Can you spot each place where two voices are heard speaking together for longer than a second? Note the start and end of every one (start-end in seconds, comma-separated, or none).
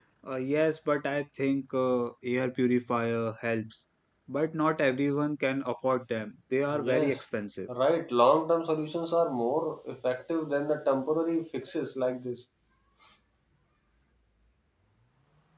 none